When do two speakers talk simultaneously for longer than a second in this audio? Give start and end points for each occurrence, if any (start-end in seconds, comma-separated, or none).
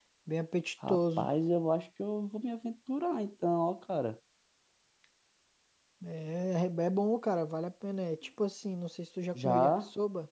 none